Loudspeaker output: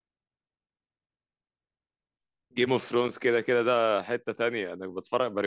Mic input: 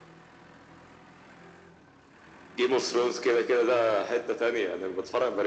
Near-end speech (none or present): none